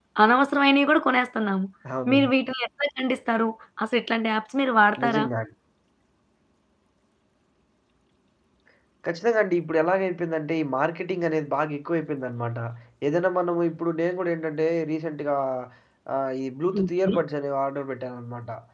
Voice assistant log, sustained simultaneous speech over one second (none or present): none